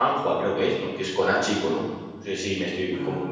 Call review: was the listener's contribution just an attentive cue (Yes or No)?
Yes